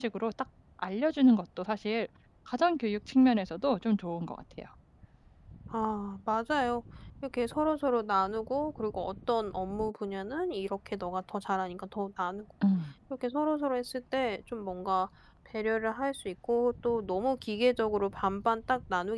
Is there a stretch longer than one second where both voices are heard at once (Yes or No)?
No